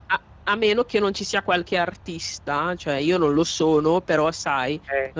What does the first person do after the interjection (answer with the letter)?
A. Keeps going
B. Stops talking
A